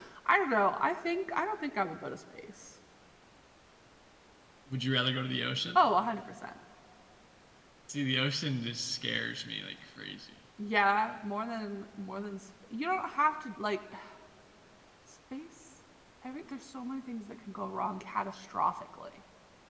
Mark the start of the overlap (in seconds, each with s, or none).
none